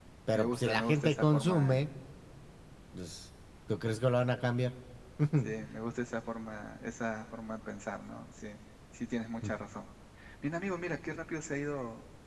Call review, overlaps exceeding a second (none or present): present